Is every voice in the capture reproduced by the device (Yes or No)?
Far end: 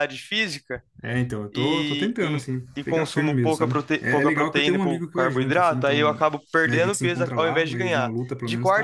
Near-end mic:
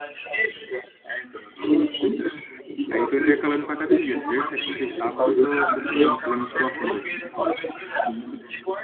No